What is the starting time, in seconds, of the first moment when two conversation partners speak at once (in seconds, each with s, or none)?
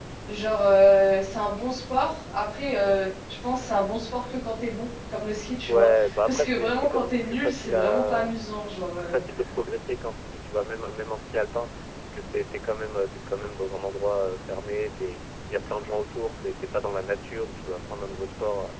5.7 s